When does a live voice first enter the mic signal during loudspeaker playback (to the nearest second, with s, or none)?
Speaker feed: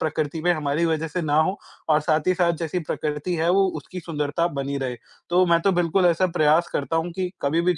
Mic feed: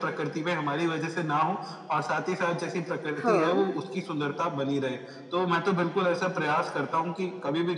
3 s